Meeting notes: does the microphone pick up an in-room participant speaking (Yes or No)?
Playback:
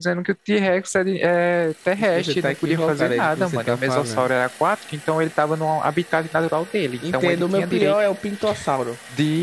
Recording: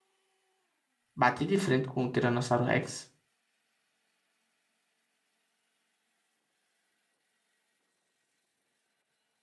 Yes